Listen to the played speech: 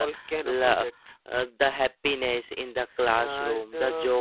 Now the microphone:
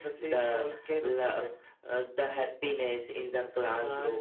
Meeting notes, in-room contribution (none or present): none